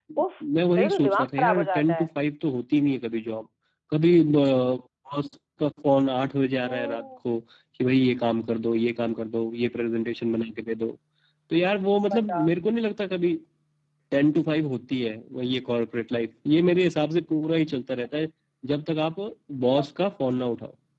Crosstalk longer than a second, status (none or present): present